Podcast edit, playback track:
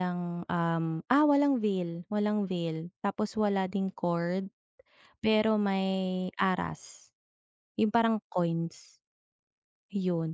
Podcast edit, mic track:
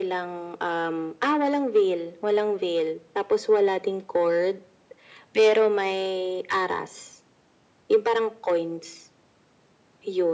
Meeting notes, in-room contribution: none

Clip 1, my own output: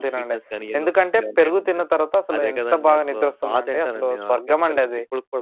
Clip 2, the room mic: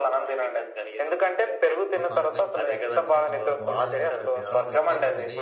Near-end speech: present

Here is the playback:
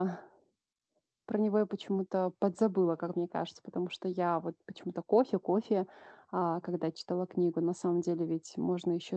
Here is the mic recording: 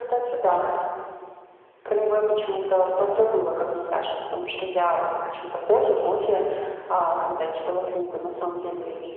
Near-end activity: none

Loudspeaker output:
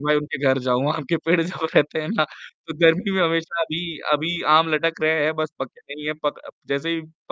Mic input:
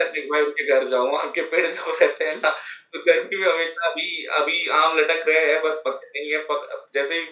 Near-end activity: none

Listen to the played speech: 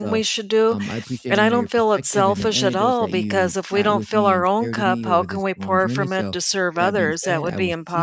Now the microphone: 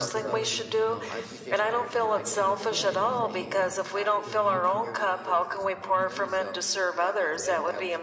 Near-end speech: present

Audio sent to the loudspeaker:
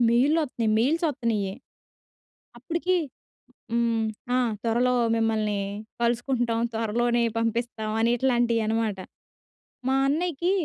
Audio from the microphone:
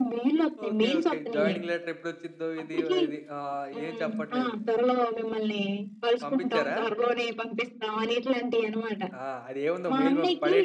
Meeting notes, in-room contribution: present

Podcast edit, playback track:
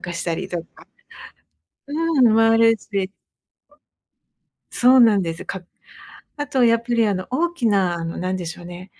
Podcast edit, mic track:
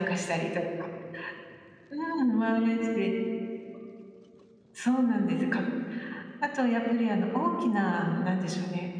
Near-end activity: none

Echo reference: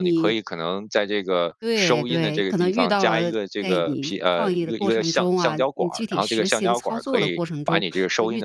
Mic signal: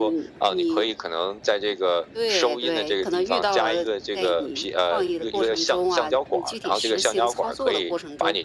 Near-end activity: none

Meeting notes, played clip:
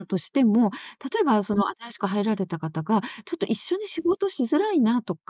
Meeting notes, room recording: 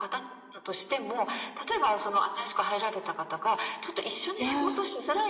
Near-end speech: present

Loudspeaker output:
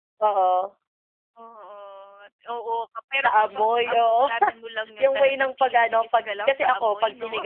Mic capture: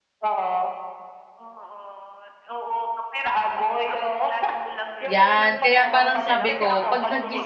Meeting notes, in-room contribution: present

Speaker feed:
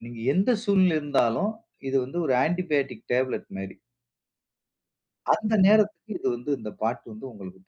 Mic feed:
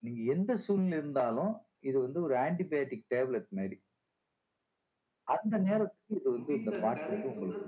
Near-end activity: present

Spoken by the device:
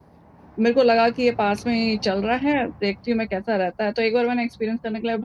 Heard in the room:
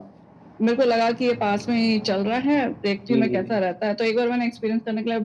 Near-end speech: present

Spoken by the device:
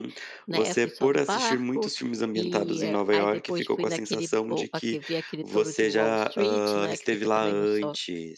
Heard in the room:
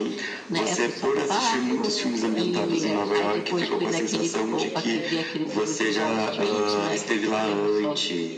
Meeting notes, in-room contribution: present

